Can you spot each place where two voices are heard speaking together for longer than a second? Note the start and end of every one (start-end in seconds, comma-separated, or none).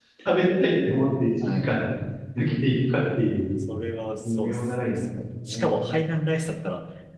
4.2-5.9